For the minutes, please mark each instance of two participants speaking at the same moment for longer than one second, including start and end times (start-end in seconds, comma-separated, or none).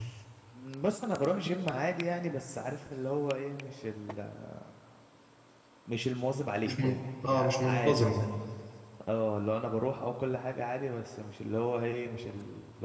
6.6-8.1